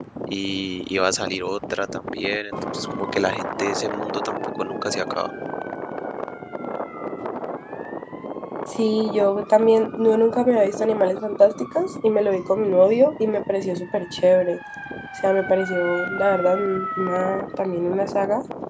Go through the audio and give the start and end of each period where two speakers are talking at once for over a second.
none

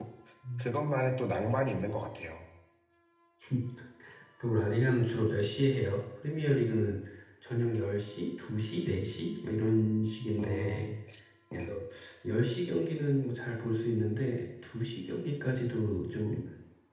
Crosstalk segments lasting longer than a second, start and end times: none

